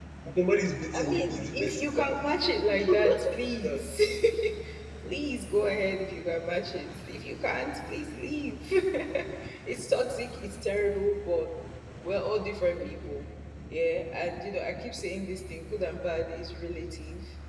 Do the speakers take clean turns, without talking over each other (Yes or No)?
No